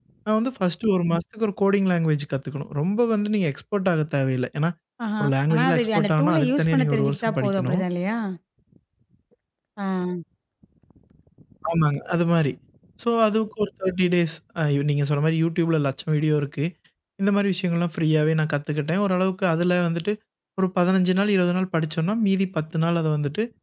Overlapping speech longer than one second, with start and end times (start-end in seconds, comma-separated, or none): 5.2-7.8